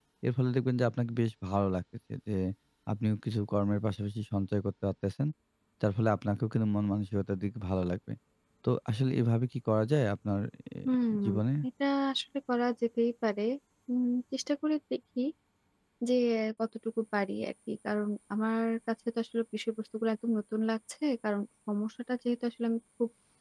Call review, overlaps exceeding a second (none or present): none